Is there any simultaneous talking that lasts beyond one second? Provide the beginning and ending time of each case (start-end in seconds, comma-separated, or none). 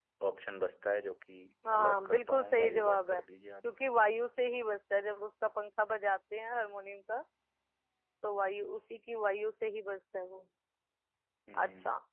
1.7-3.2